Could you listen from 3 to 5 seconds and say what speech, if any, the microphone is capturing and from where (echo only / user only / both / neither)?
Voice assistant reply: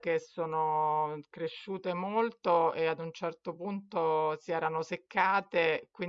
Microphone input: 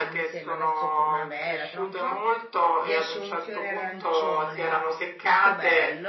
both